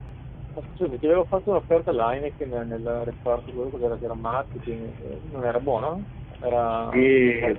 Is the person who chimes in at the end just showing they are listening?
No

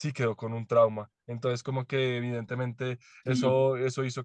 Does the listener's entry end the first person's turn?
No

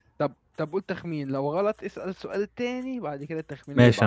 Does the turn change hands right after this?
Yes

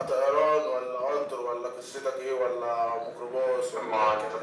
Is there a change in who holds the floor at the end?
Yes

